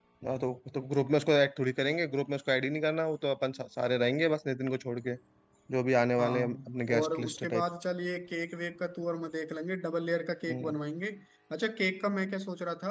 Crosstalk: present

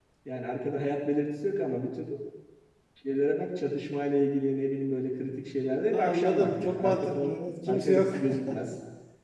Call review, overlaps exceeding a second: present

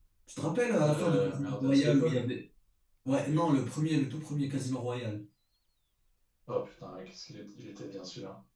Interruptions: present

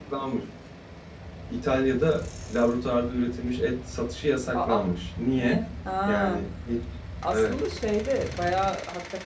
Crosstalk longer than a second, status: none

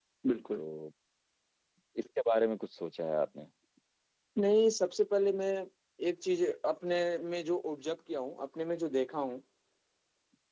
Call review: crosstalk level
none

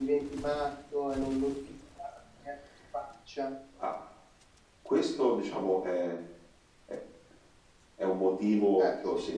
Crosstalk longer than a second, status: none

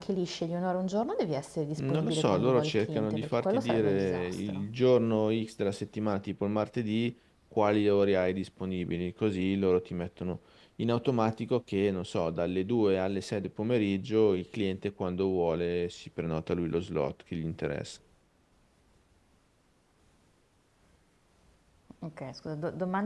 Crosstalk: present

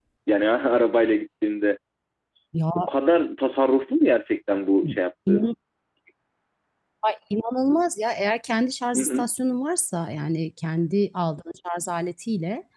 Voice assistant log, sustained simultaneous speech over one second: none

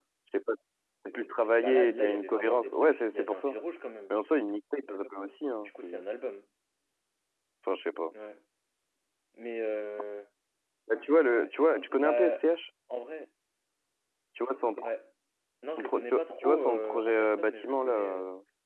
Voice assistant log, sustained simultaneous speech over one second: present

